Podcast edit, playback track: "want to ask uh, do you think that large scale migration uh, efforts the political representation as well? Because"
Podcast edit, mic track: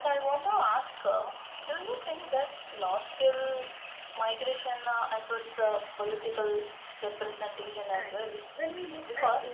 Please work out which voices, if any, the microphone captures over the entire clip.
both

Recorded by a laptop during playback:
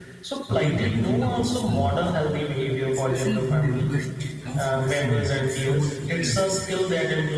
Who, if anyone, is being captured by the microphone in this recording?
both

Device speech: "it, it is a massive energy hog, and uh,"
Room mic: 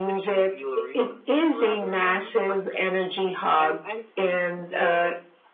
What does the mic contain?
both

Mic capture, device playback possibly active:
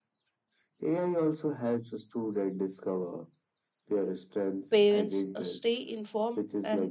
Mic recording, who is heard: both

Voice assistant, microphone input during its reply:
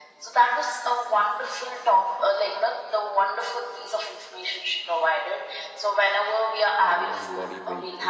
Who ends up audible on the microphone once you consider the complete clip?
both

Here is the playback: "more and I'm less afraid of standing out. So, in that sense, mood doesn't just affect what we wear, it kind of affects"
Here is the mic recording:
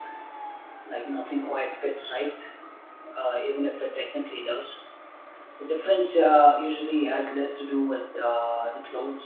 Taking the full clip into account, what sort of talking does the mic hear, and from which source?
user only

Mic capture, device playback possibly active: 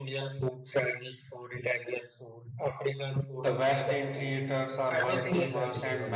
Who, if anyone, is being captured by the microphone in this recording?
both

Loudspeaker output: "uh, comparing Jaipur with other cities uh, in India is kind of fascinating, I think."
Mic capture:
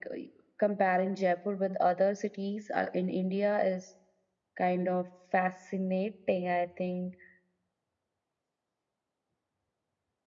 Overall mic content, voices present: echo only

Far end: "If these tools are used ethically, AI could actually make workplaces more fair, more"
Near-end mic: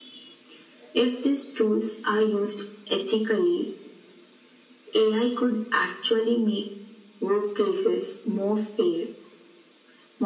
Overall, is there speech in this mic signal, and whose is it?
echo only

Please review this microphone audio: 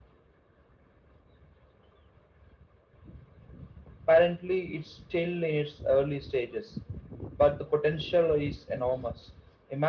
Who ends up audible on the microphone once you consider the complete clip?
echo only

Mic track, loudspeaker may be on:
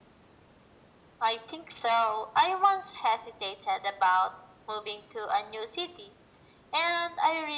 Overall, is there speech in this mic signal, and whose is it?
echo only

